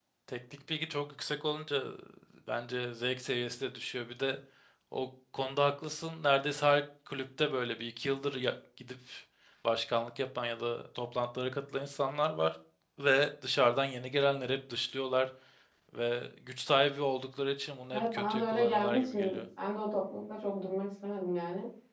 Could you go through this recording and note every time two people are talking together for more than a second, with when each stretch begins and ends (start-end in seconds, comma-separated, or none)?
17.9-19.4